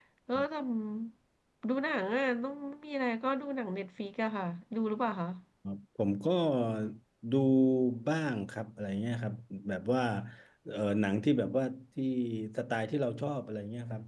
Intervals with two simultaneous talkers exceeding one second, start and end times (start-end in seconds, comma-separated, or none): none